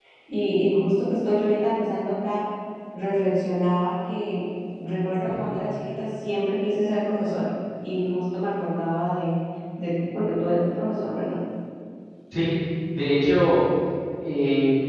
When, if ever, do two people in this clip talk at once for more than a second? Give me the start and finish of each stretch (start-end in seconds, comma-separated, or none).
none